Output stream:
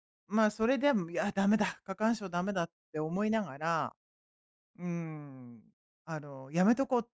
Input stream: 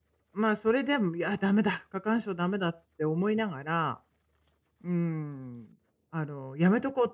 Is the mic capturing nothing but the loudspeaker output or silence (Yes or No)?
Yes